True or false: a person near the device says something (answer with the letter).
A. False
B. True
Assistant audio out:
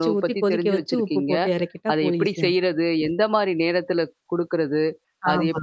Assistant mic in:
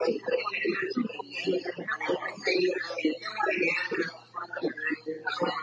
A